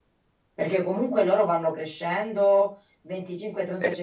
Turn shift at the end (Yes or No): No